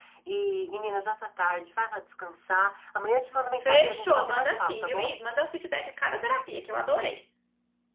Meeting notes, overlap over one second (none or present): present